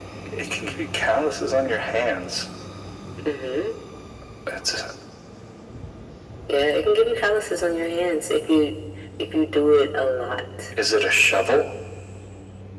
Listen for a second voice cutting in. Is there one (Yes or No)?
No